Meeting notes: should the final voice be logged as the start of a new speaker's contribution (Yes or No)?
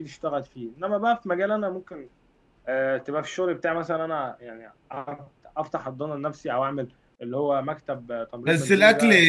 Yes